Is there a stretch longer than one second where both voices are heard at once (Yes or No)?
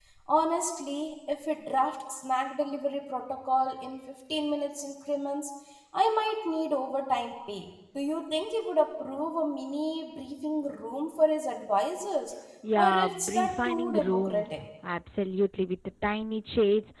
Yes